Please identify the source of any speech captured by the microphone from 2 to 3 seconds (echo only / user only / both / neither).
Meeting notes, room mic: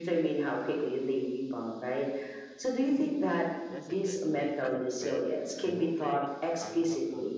echo only